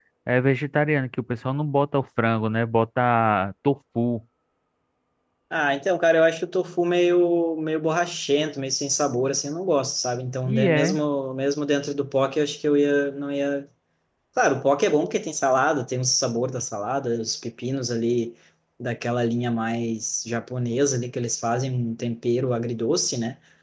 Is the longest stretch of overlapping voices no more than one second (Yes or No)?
Yes